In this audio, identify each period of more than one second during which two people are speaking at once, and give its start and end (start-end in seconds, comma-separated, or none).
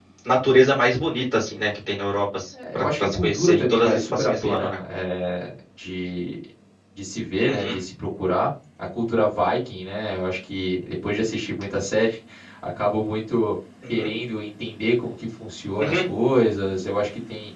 2.7-4.8